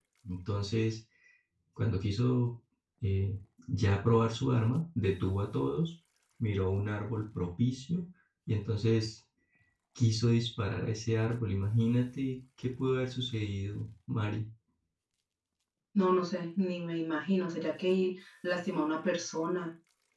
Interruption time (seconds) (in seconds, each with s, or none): none